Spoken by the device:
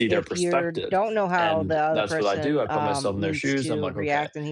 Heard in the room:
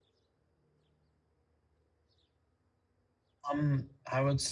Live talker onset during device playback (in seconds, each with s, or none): 3.5 s